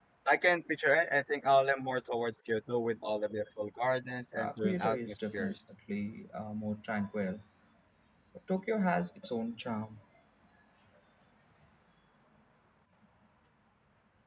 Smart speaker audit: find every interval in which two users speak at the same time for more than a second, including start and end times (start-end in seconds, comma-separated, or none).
4.3-5.5